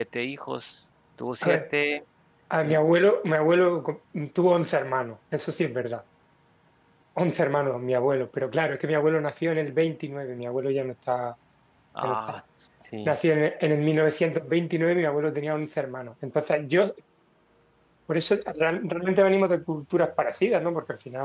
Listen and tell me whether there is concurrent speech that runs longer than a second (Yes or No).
No